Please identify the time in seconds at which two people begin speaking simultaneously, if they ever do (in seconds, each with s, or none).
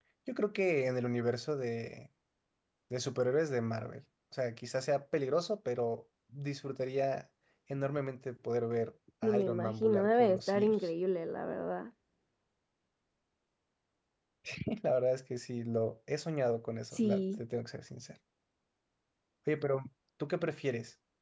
9.2 s